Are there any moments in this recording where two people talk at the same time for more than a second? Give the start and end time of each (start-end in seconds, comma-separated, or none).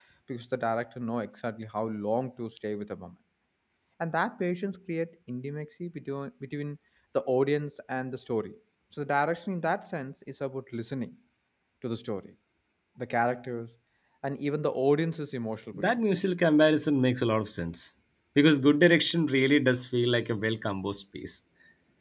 none